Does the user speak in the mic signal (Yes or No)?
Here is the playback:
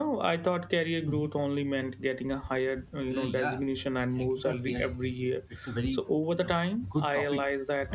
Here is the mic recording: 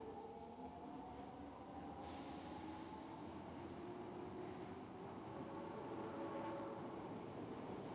No